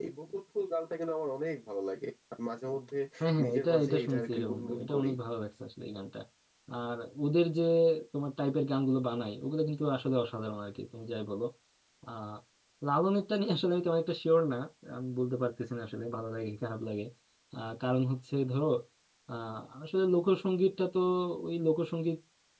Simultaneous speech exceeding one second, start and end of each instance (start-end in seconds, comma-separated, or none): 3.4-5.1